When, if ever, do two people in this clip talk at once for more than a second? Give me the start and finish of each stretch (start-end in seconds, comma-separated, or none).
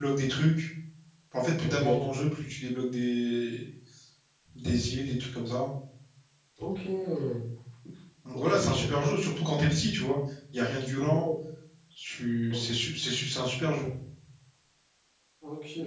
none